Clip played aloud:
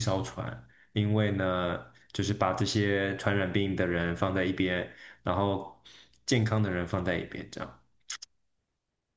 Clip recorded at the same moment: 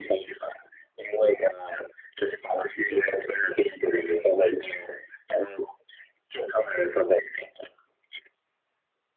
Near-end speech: none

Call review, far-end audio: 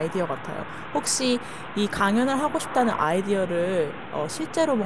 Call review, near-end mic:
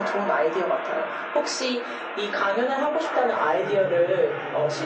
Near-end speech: present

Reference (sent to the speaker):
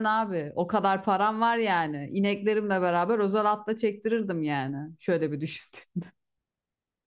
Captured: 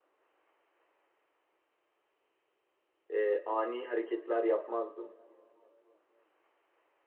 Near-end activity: present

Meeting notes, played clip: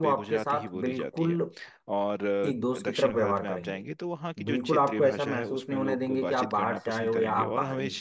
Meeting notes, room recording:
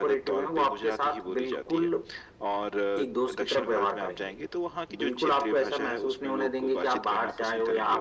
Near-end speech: none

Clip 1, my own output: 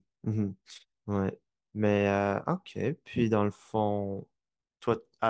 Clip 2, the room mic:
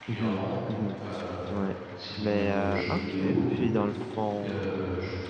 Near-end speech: present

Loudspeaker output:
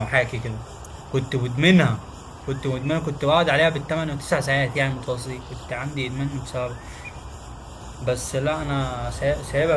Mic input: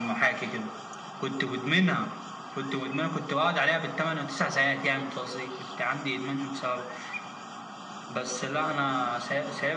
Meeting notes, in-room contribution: none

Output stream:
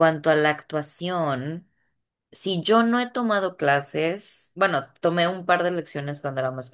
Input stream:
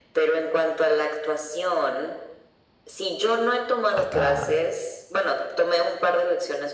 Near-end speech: present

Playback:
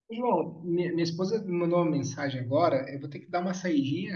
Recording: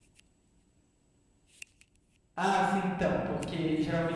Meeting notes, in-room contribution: present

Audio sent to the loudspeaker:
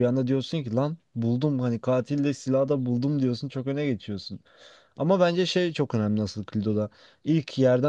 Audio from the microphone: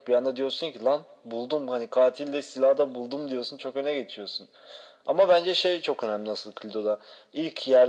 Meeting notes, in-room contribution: none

